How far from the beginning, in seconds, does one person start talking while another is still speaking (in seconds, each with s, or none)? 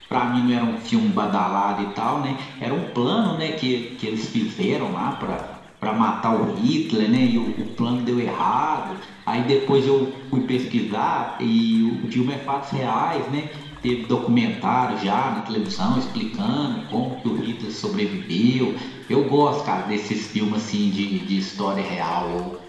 none